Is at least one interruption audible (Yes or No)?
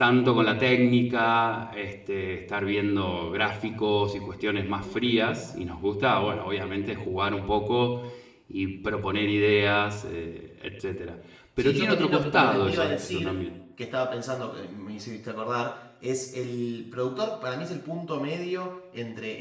Yes